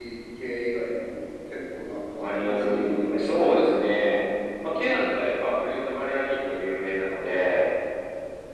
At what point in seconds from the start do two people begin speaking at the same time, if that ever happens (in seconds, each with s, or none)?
2.2 s